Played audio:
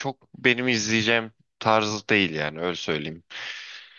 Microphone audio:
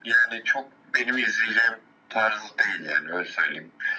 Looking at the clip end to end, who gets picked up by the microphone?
echo only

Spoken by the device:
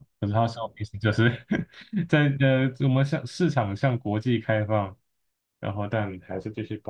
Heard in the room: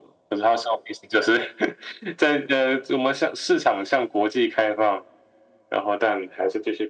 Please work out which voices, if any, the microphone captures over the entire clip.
echo only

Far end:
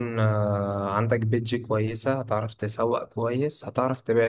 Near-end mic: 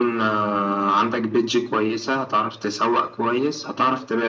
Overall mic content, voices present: echo only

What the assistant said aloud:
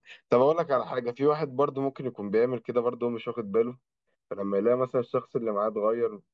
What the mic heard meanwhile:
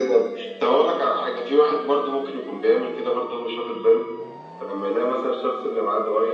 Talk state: echo only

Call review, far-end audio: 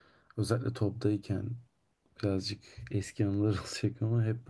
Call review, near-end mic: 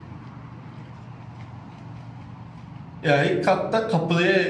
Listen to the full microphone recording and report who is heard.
user only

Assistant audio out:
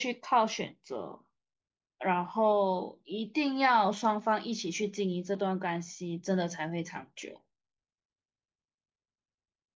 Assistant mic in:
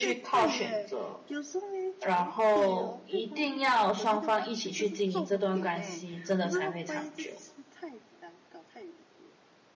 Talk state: both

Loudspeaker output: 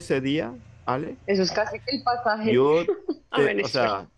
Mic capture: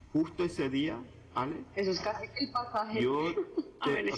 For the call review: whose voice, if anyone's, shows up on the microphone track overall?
echo only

